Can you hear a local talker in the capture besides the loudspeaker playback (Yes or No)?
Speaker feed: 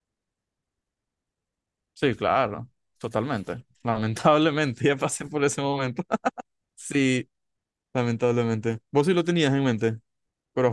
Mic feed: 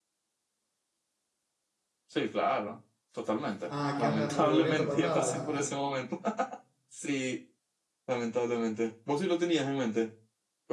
Yes